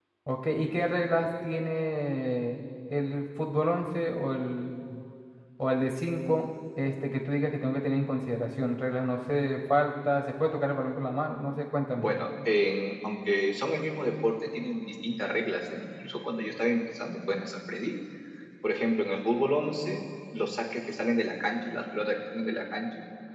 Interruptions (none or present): none